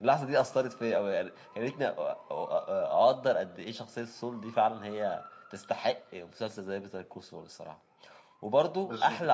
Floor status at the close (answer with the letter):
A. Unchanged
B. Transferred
A